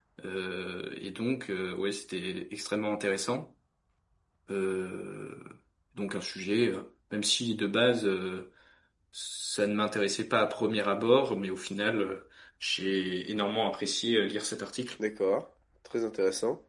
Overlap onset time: none

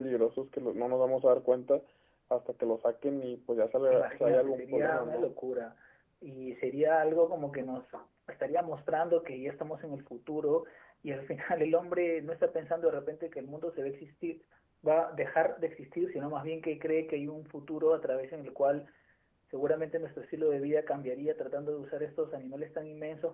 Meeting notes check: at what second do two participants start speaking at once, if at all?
3.9 s

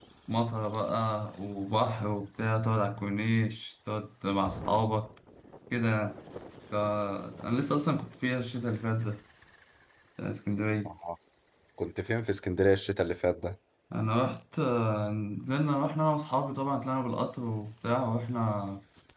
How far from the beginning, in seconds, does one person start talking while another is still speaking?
none

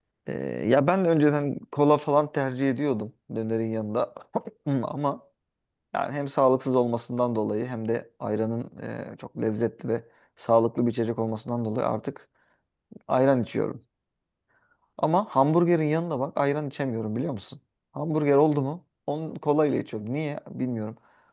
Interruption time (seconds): none

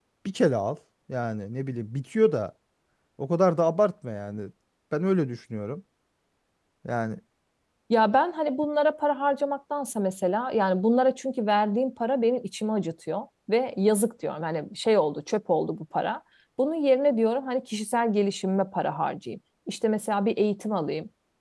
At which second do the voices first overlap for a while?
none

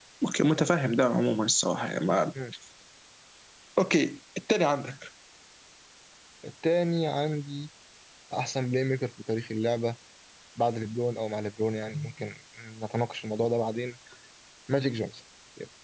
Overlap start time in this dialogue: none

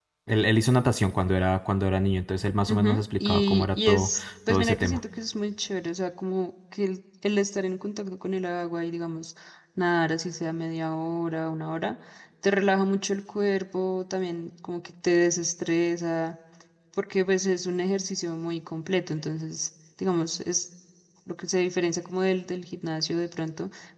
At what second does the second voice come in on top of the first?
2.7 s

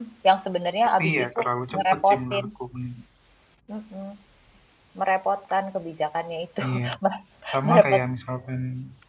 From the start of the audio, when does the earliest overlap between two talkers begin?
1.0 s

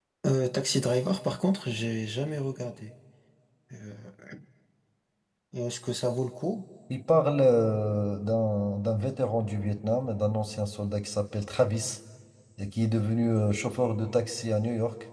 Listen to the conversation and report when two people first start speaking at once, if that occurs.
none

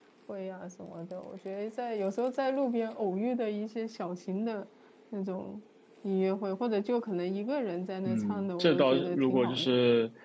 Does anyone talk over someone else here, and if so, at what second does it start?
8.0 s

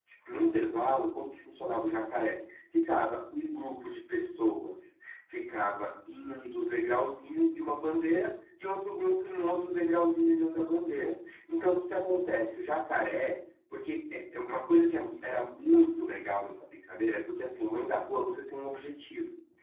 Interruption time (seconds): none

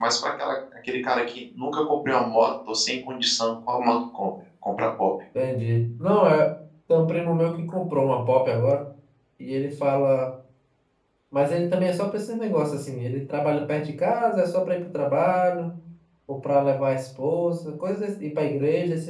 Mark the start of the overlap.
none

